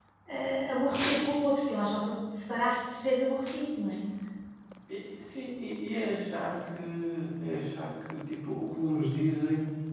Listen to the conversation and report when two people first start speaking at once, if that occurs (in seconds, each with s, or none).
none